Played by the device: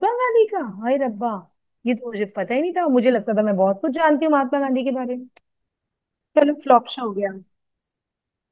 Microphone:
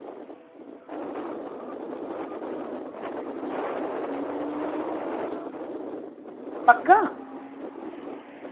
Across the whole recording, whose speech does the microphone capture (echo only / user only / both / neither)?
user only